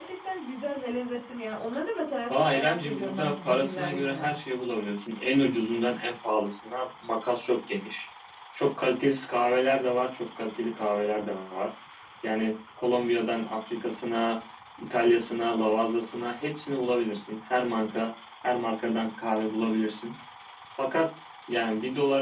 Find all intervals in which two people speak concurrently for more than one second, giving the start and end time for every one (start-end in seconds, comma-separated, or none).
2.3-4.4